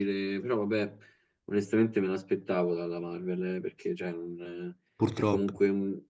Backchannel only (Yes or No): Yes